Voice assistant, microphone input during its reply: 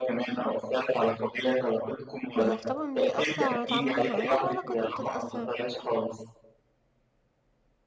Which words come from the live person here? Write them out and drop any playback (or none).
يعني ك طبعًا بيأثّر على تعاملي معاه وعلاقتنا بتتأثّر،